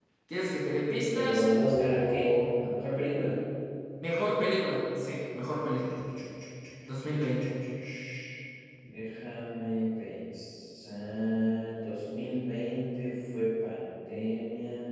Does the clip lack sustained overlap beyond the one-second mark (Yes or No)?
No